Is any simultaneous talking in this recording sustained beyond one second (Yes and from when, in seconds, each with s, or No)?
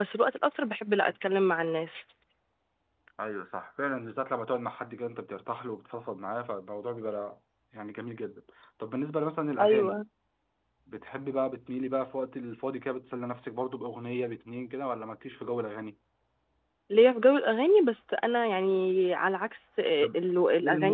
No